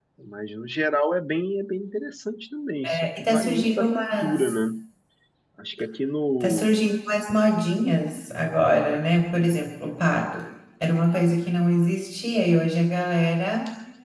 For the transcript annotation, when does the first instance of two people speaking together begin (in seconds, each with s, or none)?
2.8 s